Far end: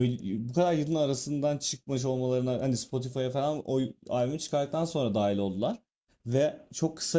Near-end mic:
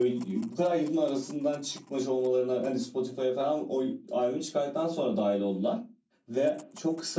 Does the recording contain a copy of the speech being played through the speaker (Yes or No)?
Yes